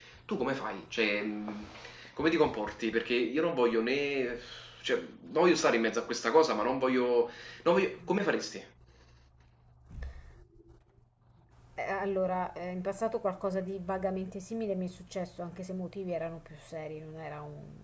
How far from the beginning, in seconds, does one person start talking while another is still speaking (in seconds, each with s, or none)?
none